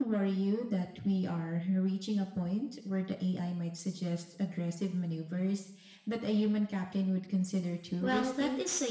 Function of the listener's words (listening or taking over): taking over